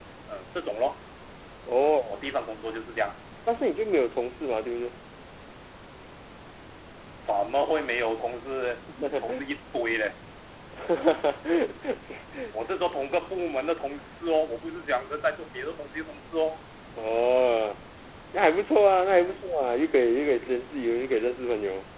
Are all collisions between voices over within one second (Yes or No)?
Yes